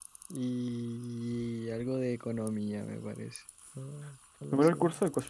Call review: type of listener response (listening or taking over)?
taking over